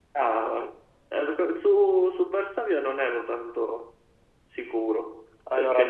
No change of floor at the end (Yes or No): Yes